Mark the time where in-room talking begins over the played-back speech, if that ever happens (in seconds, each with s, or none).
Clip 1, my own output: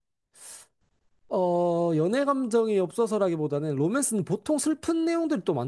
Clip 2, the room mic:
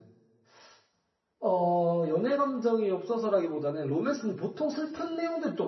none